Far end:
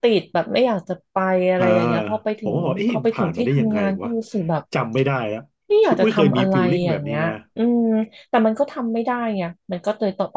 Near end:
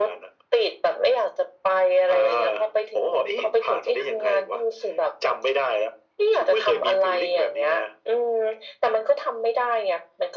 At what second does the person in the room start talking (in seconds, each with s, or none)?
none